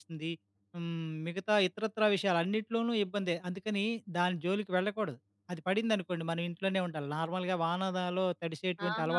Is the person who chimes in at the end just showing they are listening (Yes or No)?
No